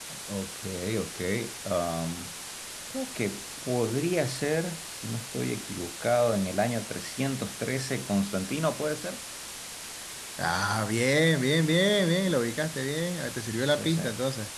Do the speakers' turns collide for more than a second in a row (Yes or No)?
No